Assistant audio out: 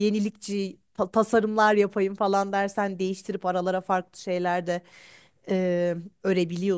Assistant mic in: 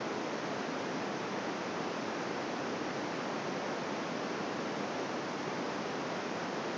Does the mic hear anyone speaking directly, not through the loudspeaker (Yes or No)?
No